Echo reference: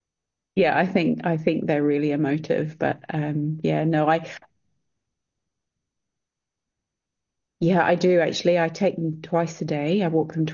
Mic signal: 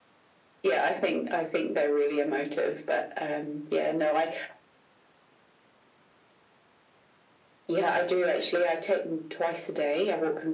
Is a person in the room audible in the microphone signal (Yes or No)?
No